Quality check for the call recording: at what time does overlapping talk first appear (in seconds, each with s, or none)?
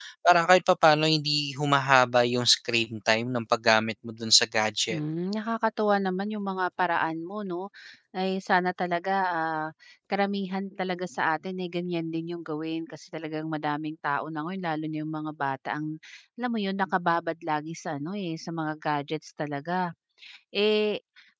none